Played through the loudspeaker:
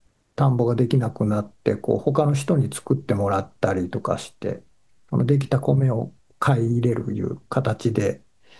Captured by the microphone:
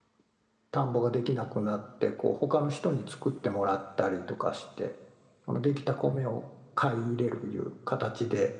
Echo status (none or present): present